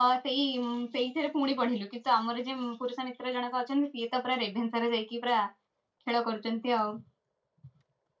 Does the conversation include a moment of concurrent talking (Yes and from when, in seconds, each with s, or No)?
No